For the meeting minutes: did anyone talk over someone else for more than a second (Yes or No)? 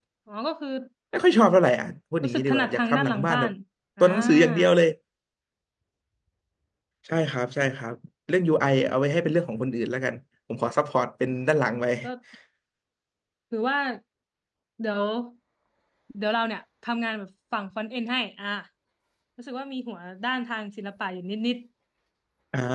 Yes